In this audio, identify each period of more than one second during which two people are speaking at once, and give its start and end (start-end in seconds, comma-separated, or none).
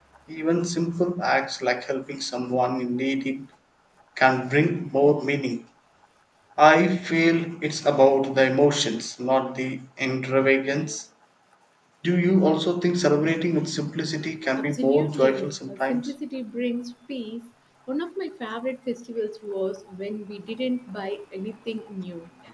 14.6-16.1